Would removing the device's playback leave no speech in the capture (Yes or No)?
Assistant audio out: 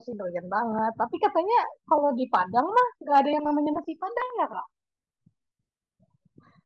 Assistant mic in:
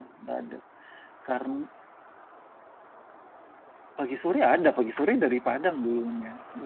No